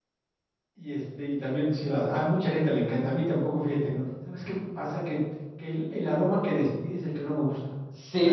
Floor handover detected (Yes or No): Yes